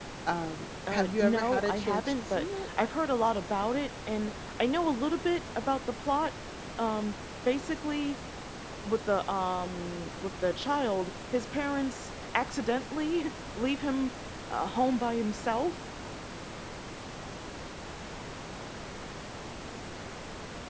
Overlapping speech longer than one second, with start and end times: 0.9-2.7

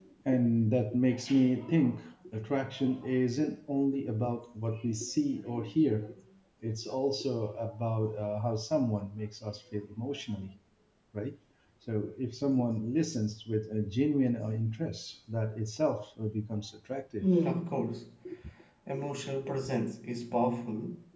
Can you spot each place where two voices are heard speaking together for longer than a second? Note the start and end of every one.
none

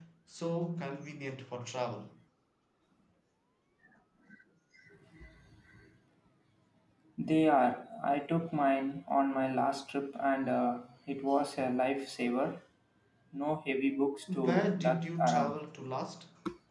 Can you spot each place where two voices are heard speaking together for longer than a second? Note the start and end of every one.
14.3-15.6

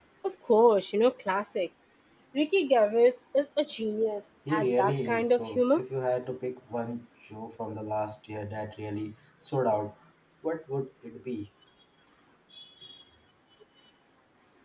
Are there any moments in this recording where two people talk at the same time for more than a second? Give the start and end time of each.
4.5-5.8

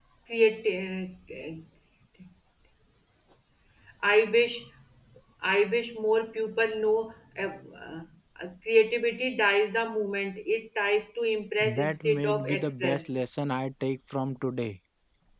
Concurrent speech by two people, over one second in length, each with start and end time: 11.6-13.1

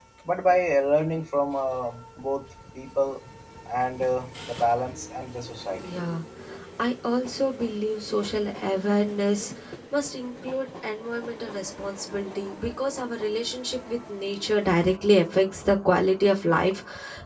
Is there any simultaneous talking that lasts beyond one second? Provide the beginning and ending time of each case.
none

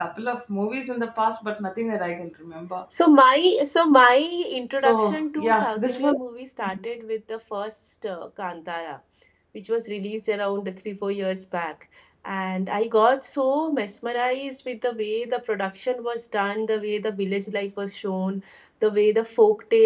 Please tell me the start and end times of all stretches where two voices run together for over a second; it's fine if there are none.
4.8-6.2

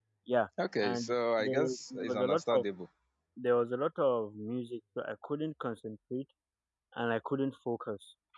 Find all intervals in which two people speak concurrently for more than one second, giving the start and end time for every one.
0.8-2.6

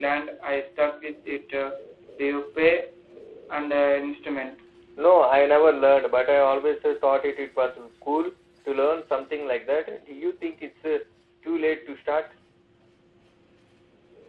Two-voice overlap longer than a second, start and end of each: none

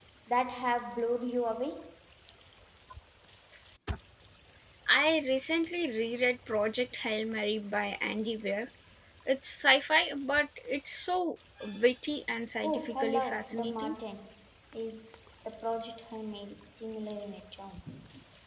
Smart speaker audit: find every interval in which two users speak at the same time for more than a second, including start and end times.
12.6-14.0

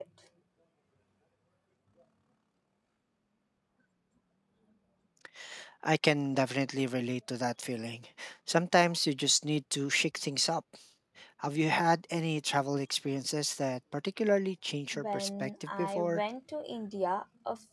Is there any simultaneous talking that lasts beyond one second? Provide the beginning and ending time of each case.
14.9-16.2

